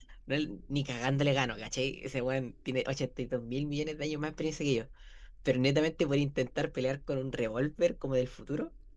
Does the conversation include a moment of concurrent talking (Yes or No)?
No